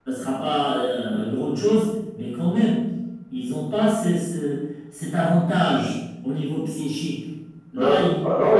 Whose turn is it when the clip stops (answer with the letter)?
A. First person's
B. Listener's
B